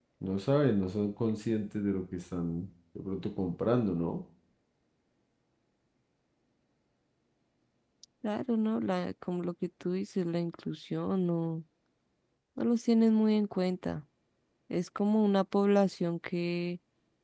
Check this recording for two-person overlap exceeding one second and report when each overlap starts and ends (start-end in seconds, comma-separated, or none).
none